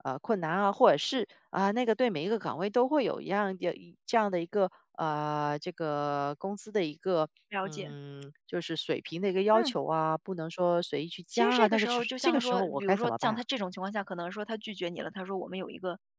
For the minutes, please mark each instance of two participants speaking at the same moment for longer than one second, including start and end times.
11.3-13.4

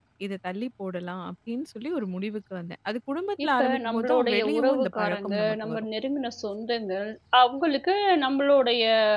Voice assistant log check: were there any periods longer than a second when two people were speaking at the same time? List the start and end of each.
3.4-5.8

